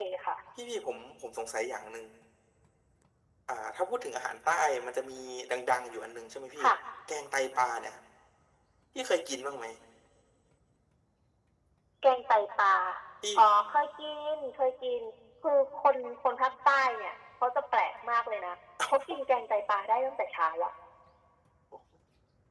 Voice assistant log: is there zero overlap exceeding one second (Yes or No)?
Yes